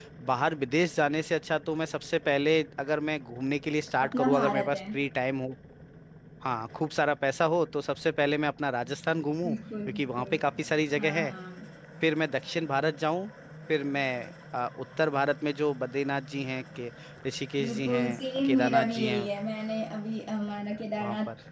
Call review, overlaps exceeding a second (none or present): present